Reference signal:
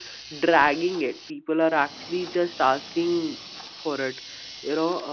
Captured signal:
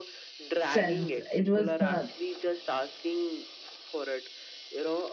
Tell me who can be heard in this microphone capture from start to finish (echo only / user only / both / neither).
both